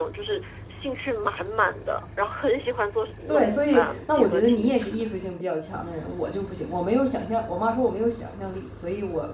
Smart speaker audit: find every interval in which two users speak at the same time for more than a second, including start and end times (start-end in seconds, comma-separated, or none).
3.3-4.7